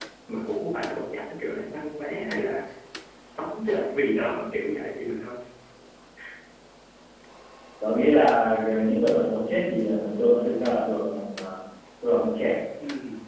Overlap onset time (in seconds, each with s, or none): none